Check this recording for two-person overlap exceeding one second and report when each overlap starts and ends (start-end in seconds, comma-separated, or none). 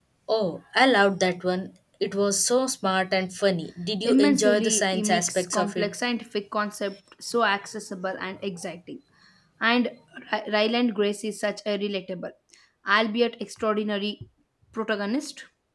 4.0-6.0